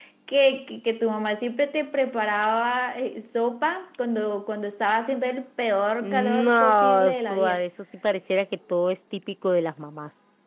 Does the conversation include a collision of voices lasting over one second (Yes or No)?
Yes